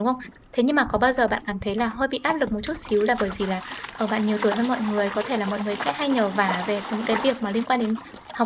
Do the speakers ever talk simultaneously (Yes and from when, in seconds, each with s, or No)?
No